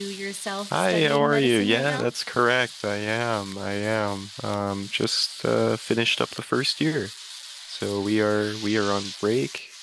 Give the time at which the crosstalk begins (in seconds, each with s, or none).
0.7 s